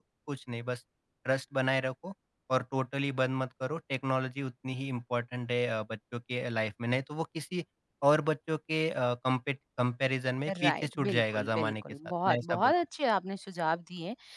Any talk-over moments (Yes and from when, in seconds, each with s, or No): Yes, from 10.5 s